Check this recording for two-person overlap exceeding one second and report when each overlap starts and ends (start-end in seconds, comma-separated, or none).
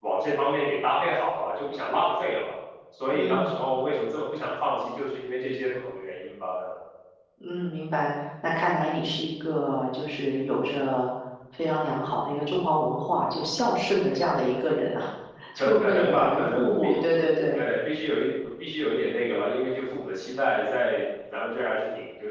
15.6-16.9